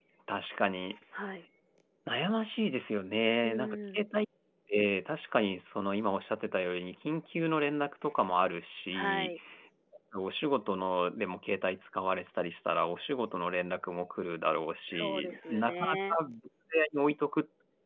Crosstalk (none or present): present